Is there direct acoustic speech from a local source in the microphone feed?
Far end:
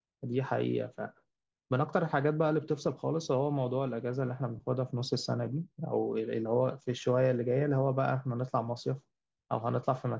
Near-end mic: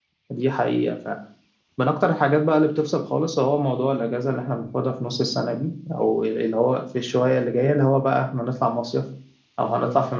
No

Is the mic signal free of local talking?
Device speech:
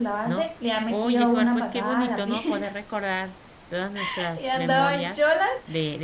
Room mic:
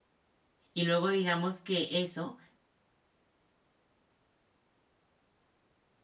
No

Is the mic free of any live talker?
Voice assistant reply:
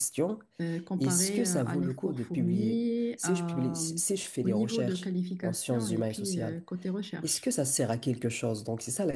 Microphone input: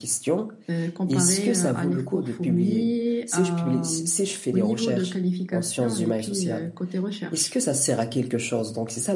Yes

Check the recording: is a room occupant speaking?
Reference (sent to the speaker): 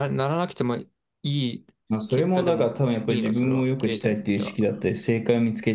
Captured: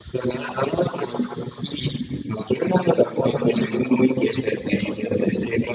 No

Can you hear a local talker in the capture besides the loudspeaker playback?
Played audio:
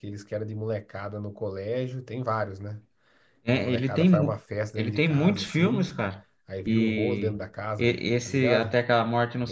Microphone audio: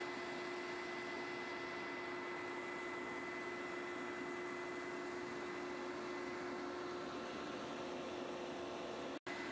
No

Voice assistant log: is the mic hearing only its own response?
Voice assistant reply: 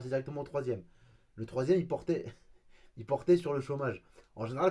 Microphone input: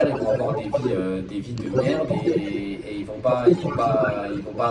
No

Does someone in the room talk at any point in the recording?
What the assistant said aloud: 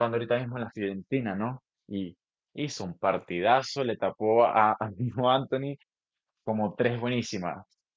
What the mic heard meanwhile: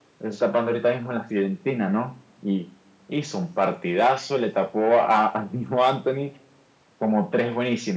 No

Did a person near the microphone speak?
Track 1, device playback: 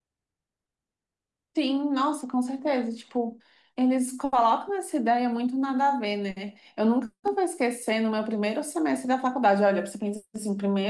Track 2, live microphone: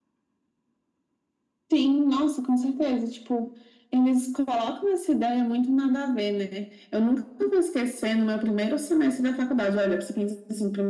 No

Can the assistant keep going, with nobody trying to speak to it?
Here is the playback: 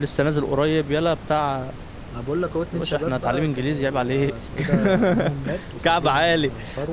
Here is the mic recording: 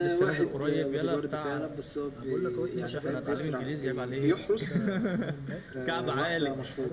No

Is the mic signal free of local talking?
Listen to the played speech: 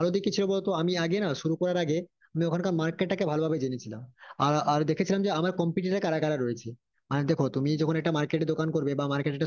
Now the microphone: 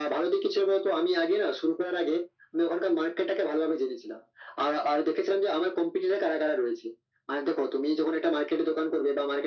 Yes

